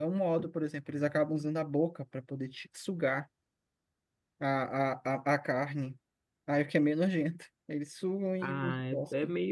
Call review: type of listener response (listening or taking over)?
taking over